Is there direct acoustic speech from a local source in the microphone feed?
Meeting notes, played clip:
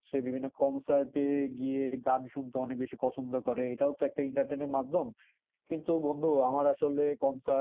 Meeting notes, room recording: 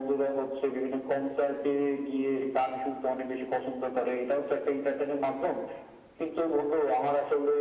No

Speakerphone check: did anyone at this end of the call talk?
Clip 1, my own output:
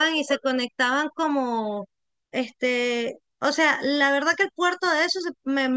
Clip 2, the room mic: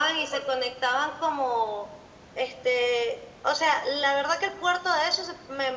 No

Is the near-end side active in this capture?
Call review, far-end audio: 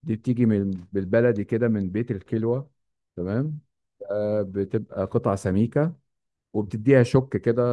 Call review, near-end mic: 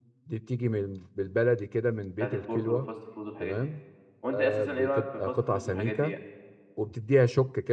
Yes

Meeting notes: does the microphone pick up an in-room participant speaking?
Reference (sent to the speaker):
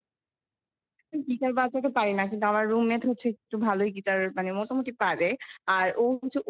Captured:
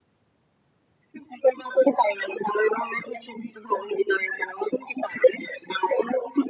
No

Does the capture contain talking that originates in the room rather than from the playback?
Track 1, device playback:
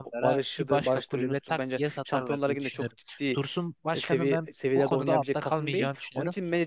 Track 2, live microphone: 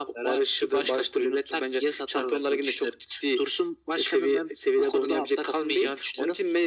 No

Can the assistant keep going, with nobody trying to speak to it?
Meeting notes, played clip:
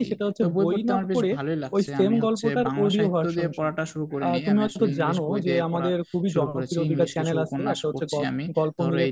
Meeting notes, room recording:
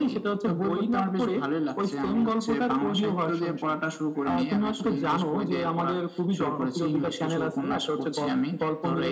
Yes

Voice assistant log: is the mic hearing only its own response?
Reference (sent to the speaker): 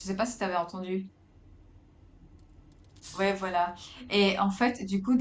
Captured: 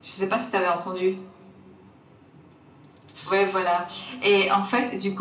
Yes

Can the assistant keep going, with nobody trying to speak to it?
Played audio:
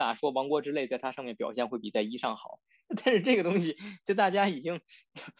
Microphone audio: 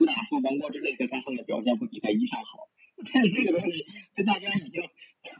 Yes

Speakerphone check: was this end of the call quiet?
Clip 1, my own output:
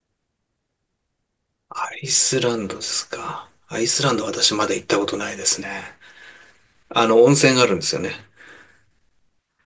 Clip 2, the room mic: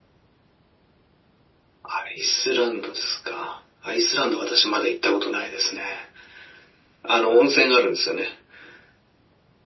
Yes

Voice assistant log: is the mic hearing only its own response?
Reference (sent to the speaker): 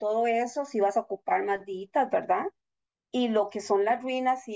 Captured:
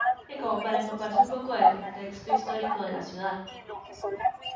No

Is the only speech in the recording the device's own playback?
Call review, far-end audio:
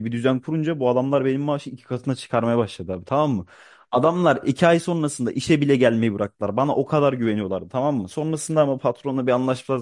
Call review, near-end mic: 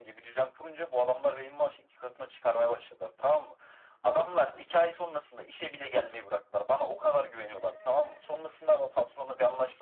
Yes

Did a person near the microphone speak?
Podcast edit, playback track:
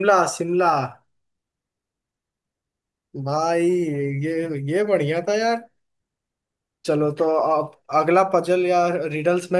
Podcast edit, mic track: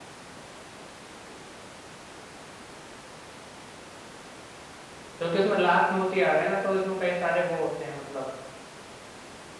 Yes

